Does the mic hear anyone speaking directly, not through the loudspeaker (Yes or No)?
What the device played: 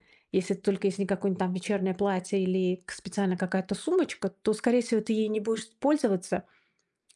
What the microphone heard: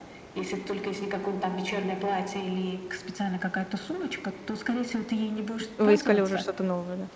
Yes